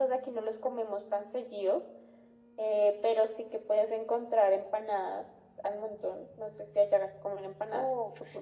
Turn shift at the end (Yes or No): Yes